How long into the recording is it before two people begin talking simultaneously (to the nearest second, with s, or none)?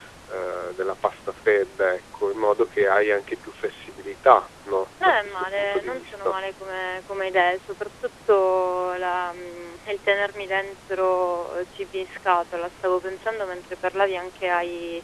5 s